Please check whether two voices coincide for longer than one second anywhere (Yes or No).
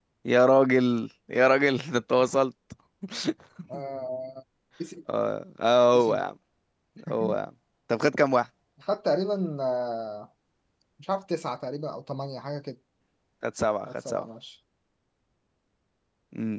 No